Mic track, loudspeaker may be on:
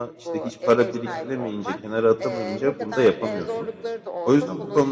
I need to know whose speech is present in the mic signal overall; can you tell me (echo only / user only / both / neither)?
both